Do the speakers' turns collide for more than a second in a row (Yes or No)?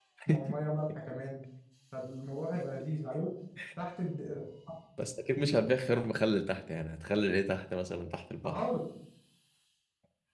No